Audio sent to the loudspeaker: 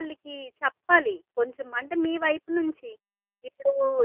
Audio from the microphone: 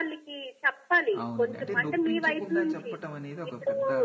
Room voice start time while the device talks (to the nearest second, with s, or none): 1 s